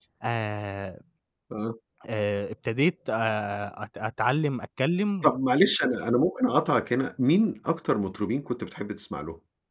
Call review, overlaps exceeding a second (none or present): none